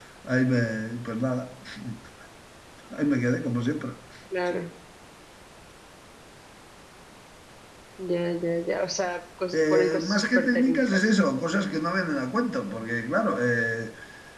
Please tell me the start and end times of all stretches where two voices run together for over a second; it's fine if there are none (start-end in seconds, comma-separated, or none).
9.6-11.1